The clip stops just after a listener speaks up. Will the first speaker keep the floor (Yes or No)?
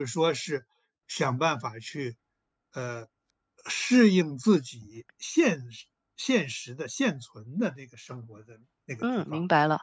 No